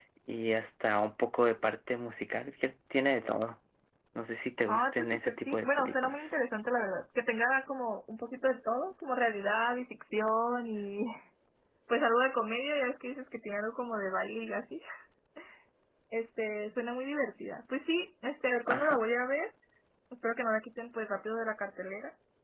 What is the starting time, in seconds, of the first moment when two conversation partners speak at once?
4.7 s

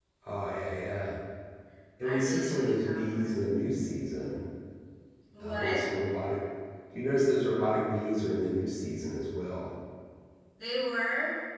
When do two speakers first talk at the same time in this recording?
2.0 s

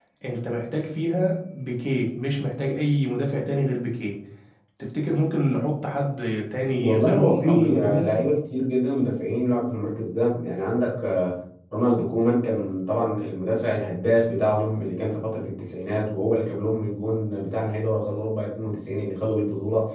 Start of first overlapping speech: 6.7 s

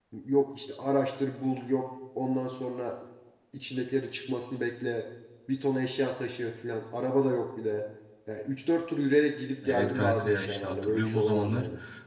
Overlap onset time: 9.6 s

